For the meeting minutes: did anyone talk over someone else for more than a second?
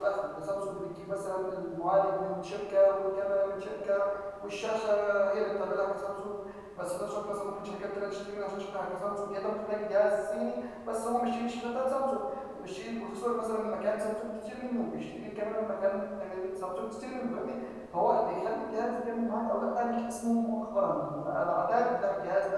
No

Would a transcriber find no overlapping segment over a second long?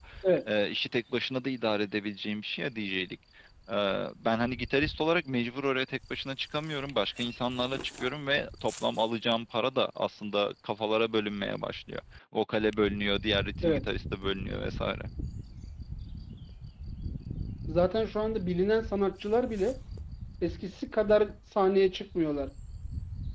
Yes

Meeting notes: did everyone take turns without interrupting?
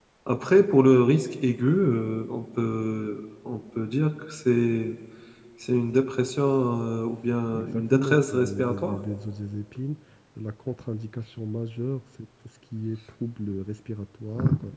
No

